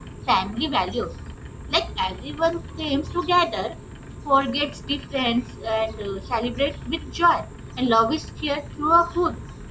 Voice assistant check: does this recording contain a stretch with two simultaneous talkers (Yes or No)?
No